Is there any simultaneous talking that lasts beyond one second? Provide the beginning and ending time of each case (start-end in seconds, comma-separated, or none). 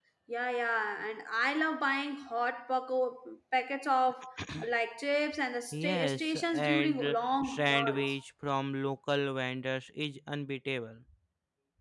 5.7-8.1